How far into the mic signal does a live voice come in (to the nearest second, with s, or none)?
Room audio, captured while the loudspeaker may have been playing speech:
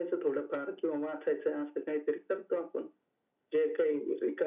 none